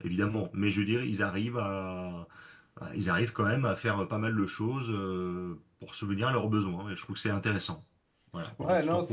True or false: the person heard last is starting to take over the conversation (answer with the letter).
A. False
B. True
B